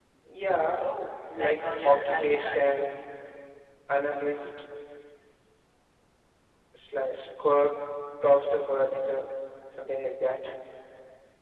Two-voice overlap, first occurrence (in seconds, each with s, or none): 1.4 s